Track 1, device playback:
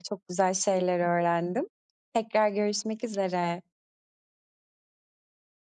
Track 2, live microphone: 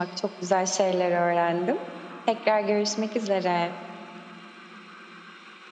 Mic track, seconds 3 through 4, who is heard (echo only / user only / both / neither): echo only